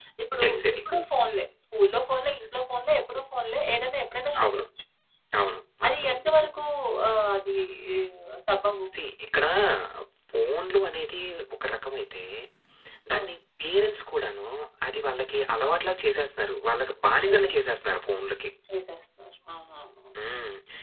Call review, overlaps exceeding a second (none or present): none